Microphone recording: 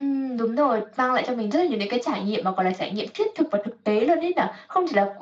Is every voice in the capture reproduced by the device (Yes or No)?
Yes